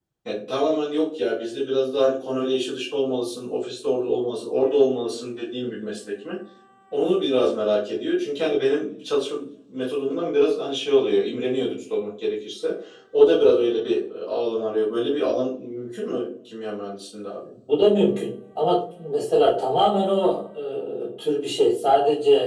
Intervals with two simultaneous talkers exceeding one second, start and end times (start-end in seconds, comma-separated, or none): none